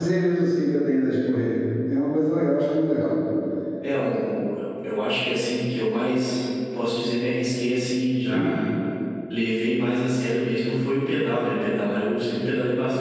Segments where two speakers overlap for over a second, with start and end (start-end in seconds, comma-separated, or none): none